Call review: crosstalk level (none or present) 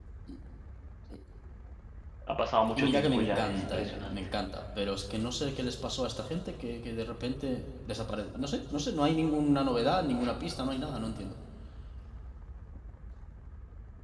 present